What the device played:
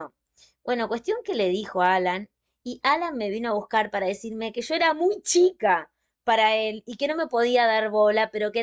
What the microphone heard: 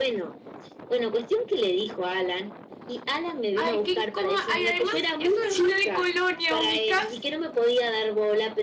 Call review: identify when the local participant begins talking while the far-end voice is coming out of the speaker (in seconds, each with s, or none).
3.5 s